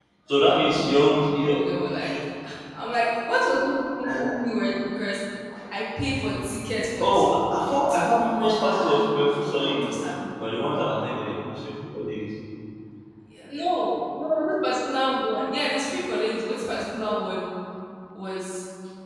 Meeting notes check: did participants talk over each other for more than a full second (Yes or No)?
Yes